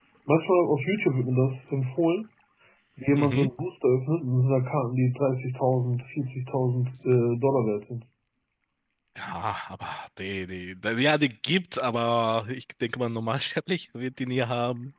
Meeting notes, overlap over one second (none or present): none